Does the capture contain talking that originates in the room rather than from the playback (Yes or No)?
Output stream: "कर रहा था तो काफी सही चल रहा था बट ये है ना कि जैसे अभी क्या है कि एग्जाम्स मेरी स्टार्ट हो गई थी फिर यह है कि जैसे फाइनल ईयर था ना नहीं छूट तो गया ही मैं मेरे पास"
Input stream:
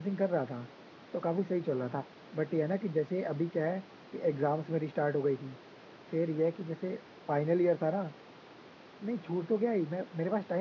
No